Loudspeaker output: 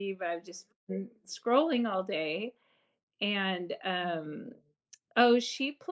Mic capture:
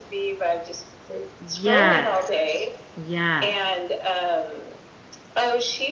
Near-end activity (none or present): present